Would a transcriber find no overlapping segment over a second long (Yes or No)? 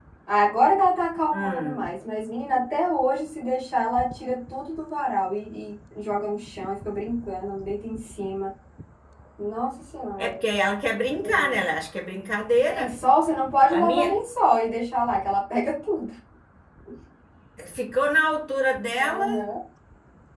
Yes